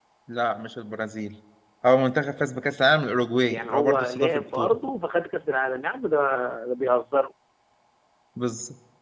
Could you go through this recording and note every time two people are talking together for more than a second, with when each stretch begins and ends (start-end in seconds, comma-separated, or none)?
3.5-4.8